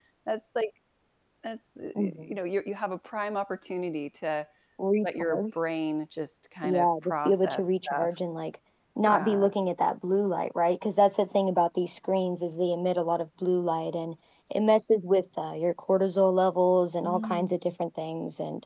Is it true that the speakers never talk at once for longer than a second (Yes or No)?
No